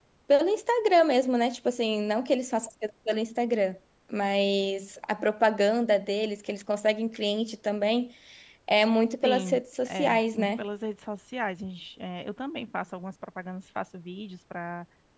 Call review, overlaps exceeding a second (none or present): present